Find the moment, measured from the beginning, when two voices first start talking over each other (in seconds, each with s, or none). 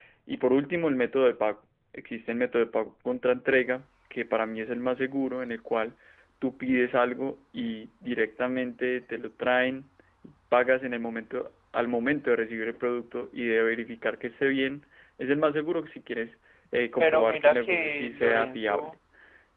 17.0 s